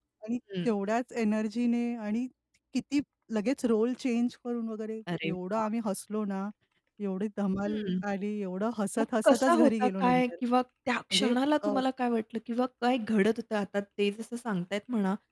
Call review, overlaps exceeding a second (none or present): present